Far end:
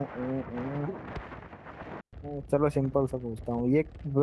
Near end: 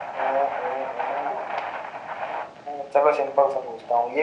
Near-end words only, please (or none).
none